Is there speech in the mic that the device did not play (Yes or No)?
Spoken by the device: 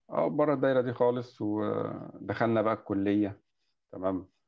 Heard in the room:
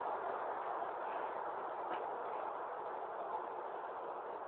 No